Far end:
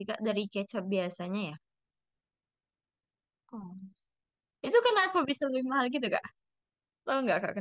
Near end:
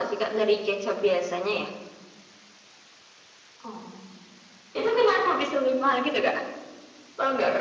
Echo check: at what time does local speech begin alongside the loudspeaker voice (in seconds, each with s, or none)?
none